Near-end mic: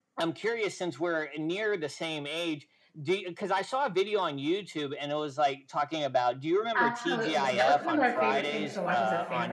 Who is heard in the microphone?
both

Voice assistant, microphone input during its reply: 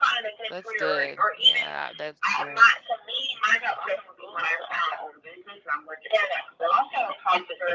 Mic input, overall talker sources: both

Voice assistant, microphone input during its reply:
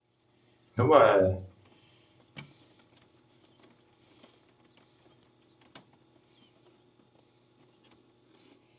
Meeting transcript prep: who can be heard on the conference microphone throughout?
user only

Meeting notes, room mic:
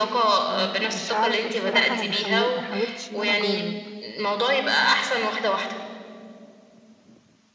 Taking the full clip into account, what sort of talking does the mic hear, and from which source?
both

